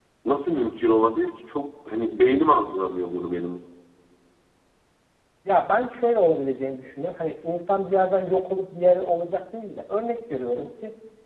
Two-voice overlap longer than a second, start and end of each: none

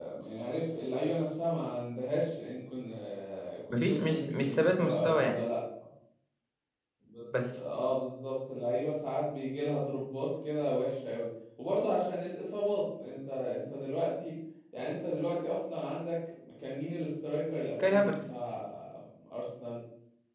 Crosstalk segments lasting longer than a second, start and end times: 3.7-5.4

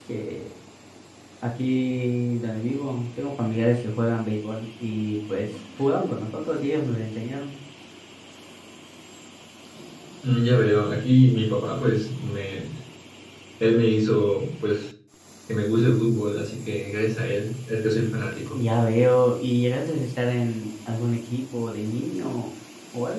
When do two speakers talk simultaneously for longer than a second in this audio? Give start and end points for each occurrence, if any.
none

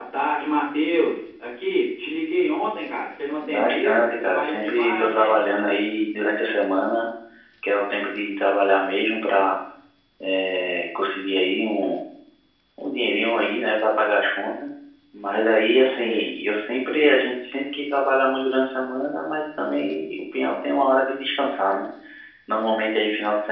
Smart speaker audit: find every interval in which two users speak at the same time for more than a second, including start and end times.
3.5-5.4

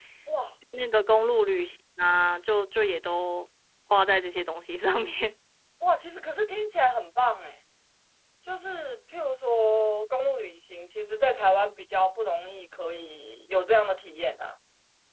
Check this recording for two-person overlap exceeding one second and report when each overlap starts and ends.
none

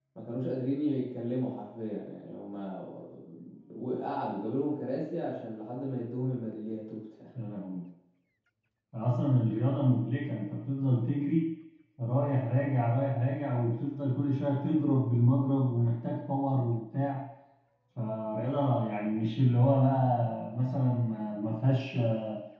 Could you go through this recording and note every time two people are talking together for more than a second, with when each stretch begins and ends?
none

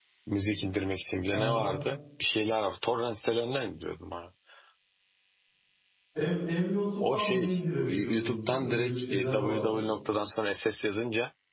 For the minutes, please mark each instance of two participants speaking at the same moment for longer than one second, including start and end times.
7.1-9.8

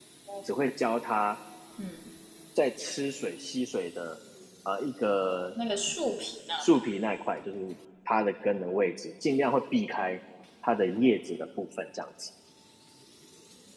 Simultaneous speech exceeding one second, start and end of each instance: none

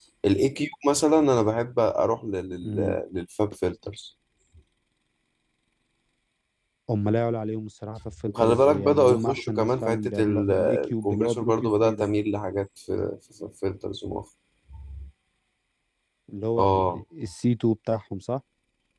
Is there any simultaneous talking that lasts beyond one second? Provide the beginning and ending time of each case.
8.2-12.1

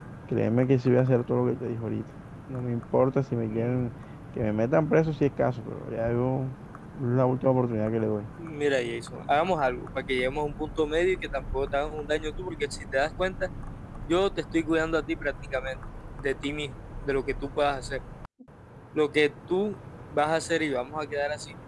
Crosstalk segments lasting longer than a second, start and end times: none

